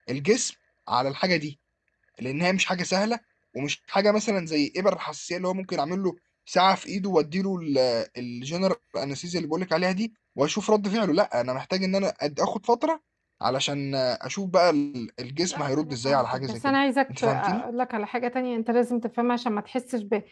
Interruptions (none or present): present